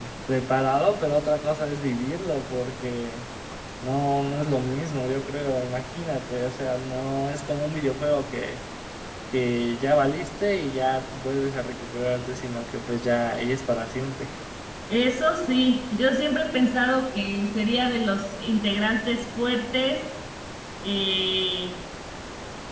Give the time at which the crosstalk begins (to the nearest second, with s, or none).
none